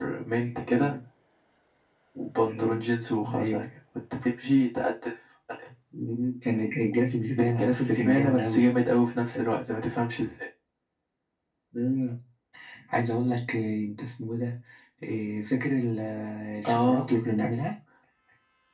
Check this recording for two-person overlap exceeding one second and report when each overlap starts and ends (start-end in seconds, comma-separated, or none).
7.4-8.6